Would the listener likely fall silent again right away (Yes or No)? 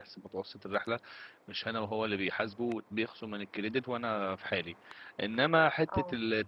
Yes